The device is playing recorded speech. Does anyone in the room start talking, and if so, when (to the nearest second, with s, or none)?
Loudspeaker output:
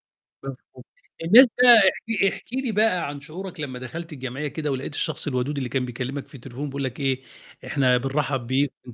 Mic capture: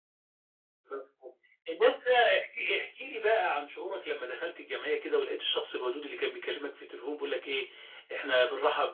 none